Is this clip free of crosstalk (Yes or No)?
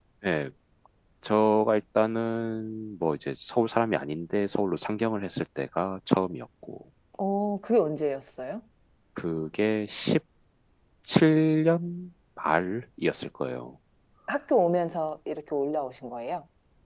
Yes